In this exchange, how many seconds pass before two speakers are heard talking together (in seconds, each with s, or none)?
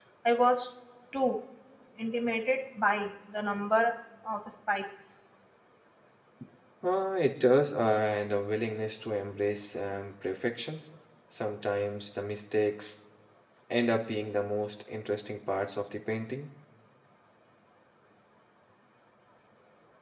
none